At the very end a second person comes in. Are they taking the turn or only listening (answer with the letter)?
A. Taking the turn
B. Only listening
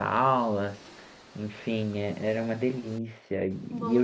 B